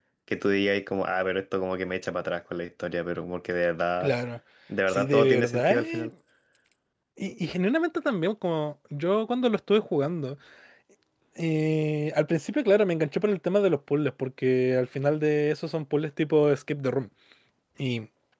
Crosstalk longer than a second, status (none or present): present